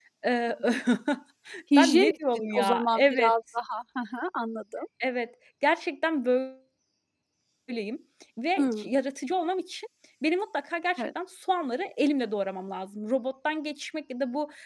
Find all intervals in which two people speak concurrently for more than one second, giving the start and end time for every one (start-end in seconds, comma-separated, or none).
1.8-3.3